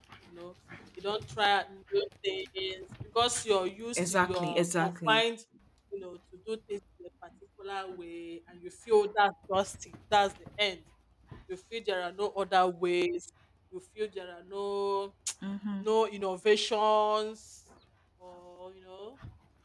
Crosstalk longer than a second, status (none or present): present